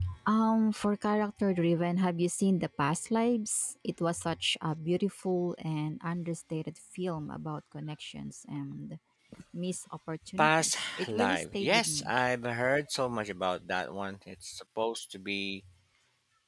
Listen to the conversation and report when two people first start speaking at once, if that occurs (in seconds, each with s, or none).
10.4 s